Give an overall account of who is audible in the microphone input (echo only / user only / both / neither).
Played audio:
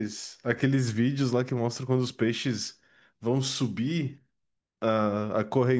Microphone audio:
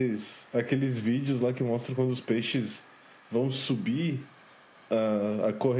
echo only